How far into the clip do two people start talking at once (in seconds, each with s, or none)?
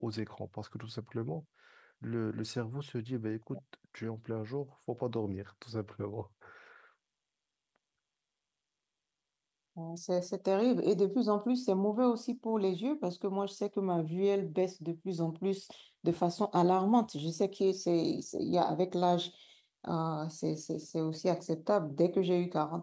none